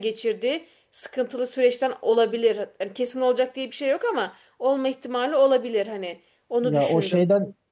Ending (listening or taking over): taking over